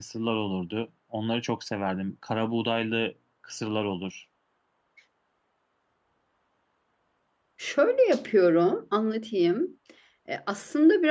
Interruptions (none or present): none